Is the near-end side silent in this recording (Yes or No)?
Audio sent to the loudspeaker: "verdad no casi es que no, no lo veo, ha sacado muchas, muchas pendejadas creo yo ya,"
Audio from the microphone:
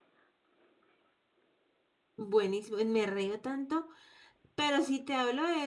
No